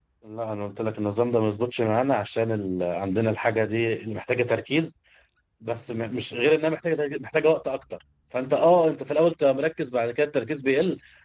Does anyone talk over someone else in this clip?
No

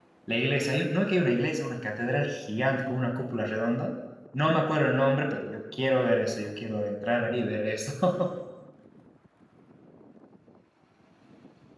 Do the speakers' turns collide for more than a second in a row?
No

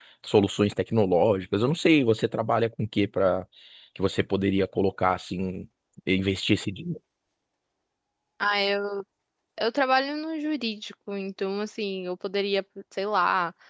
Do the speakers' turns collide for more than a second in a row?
No

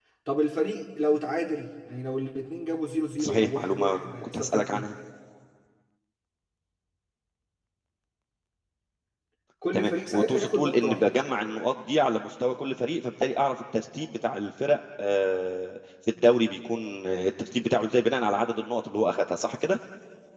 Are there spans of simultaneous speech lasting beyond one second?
Yes, from 3.2 s

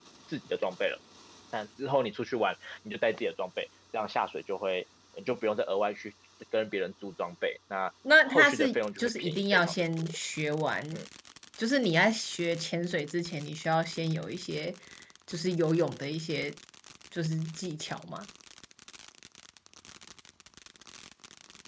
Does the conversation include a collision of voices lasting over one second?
Yes, from 8.0 s

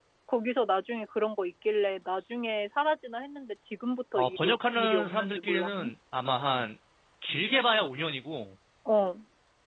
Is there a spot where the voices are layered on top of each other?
Yes, from 4.2 s

